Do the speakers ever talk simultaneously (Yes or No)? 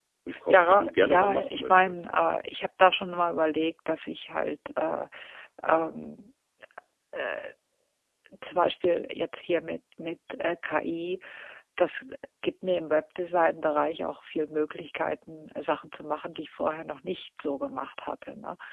Yes